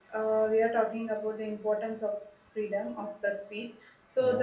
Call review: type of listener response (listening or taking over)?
listening